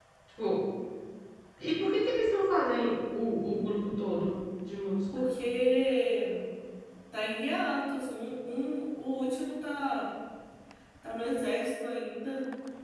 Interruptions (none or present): none